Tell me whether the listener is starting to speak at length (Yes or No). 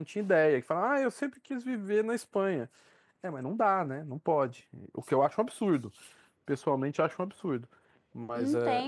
Yes